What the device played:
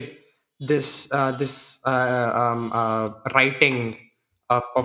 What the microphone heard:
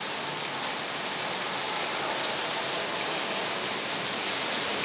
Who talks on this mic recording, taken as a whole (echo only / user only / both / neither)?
neither